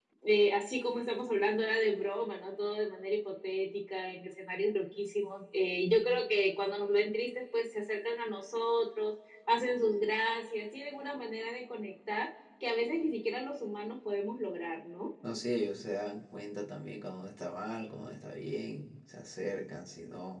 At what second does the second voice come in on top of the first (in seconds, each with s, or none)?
none